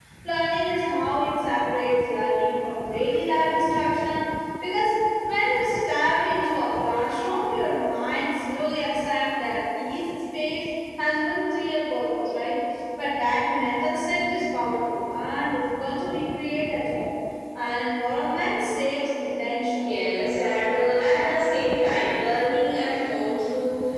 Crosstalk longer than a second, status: none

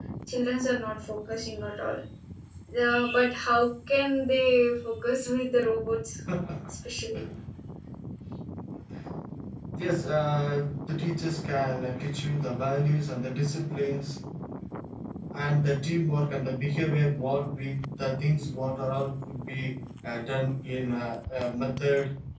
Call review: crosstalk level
none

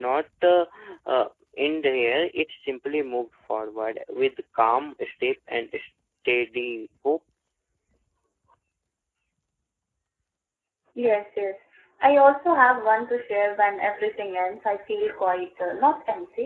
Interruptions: none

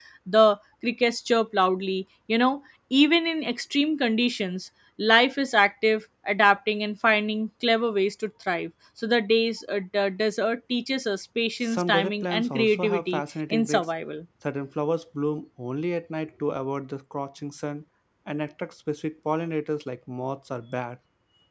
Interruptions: present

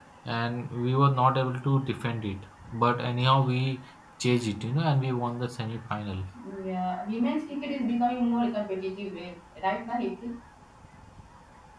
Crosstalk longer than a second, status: none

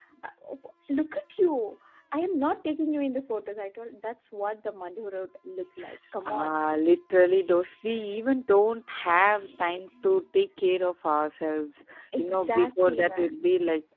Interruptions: present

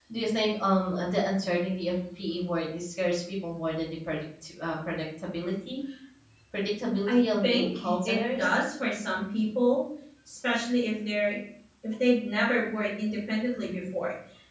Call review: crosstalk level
present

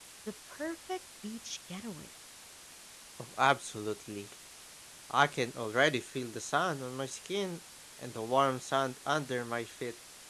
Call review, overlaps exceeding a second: none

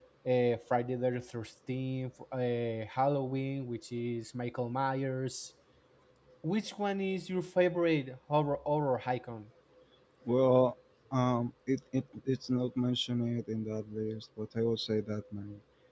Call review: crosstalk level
none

